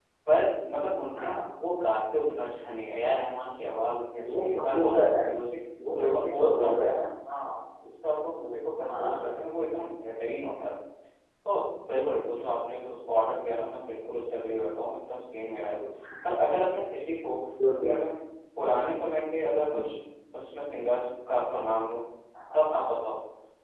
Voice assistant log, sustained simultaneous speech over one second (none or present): present